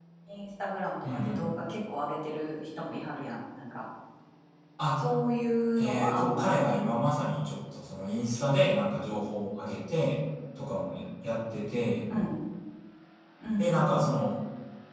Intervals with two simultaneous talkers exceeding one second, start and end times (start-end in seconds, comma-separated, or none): 5.8-7.0